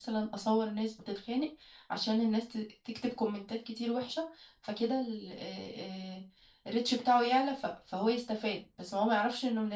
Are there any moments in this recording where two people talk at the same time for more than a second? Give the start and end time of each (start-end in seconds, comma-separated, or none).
none